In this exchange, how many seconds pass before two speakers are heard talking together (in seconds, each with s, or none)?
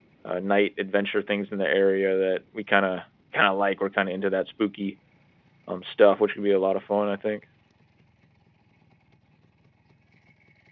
none